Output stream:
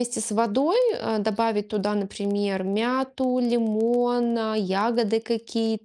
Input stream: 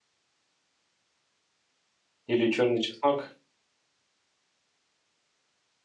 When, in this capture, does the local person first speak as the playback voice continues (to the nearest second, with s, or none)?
2 s